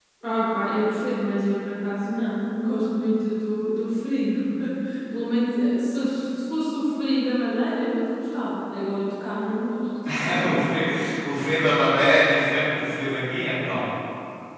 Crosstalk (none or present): none